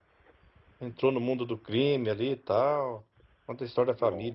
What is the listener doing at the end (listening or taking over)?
listening